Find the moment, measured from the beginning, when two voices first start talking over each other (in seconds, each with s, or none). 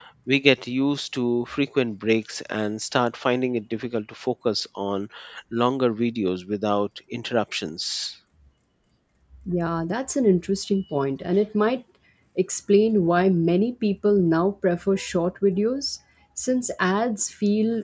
none